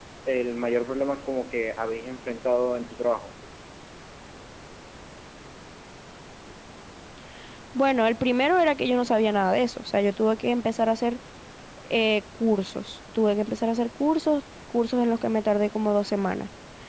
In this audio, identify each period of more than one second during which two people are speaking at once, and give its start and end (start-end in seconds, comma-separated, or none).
none